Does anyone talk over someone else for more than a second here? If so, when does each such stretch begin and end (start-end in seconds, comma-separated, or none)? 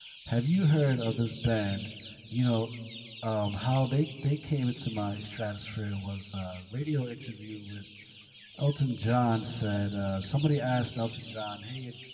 none